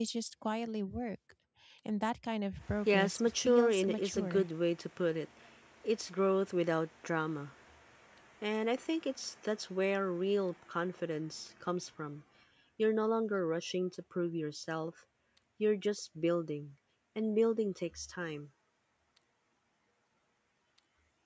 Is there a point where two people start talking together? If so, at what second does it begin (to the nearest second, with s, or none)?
3 s